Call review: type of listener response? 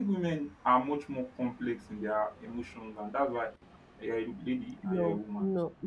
taking over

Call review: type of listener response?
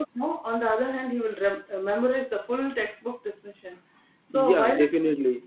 taking over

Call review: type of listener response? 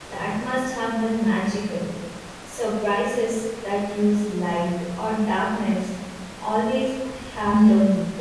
taking over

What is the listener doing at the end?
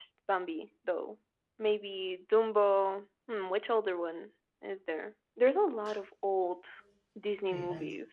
taking over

